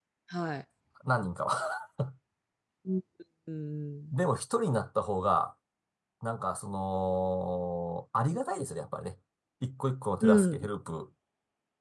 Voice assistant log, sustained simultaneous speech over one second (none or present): none